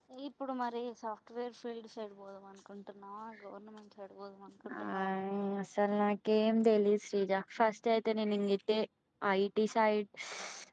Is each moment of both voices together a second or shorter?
Yes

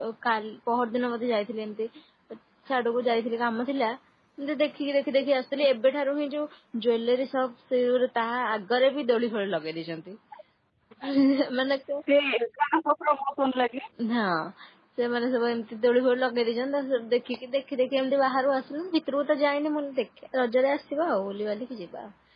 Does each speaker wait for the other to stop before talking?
Yes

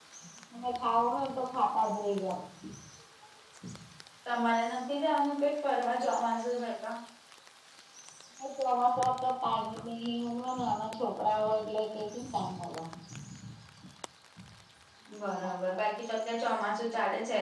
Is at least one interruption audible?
No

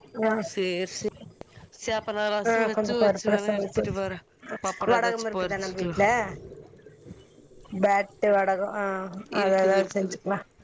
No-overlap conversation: No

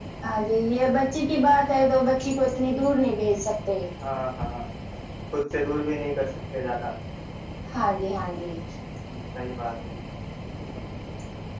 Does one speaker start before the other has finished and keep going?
No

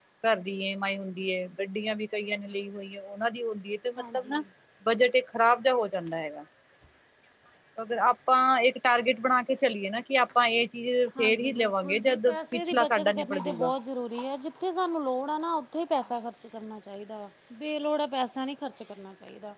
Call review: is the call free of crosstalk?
No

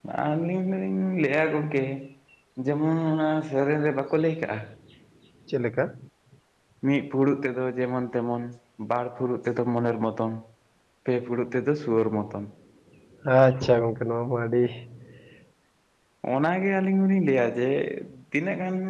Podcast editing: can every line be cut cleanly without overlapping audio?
Yes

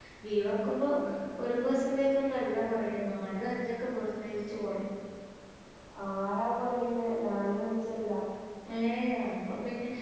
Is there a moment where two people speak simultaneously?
No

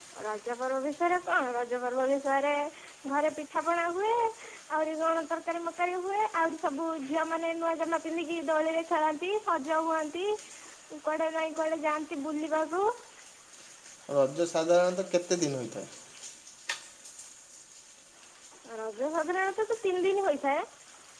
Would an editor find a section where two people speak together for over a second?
No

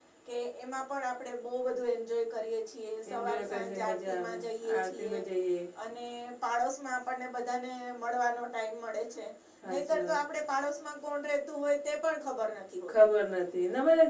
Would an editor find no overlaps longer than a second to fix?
No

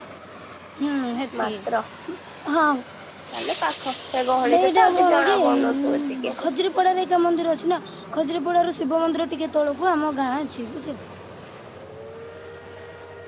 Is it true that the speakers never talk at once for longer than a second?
No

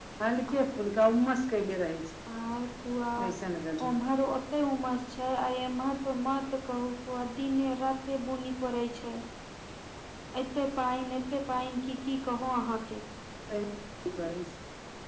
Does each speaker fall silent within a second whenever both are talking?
Yes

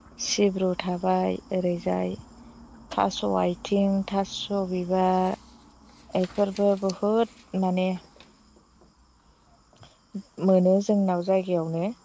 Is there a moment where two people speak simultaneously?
No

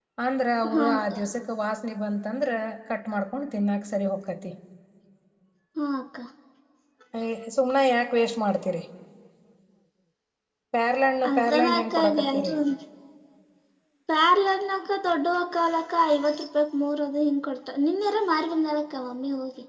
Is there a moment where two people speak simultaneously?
Yes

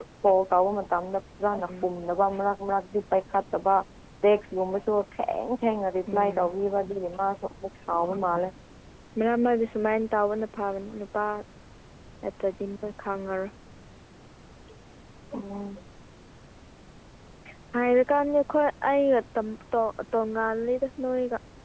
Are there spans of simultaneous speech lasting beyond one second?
No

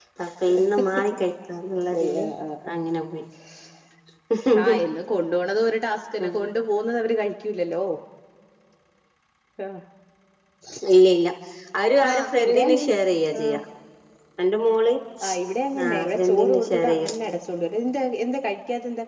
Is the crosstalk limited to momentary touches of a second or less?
No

